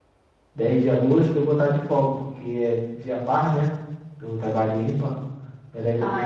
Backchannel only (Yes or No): No